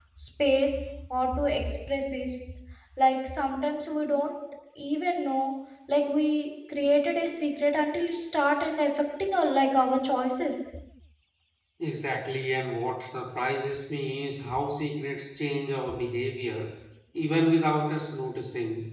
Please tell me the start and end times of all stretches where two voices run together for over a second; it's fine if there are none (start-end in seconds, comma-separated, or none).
none